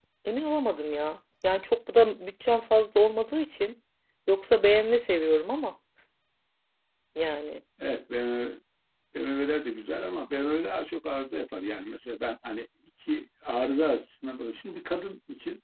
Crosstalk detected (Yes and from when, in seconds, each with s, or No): No